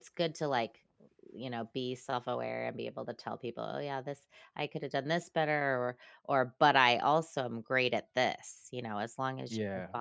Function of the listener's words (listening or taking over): listening